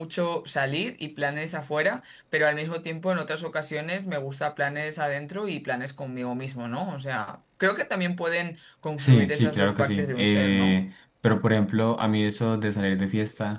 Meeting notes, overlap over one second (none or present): present